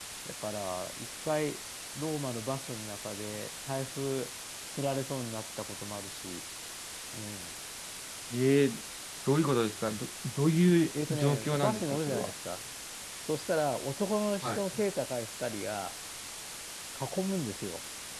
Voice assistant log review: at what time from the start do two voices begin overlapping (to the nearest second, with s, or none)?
11 s